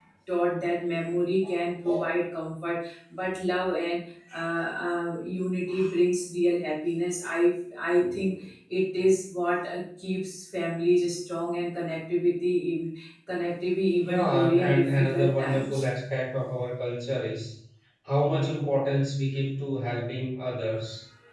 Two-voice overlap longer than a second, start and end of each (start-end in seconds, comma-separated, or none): 14.0-15.8